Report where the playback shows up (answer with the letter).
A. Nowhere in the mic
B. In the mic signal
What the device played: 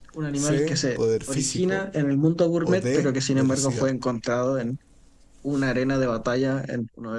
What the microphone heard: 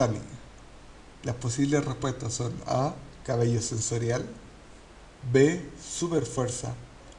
A